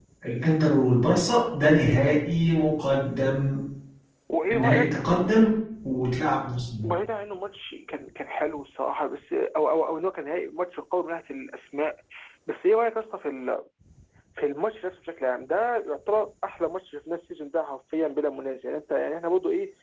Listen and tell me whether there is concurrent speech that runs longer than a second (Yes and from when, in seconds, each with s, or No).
No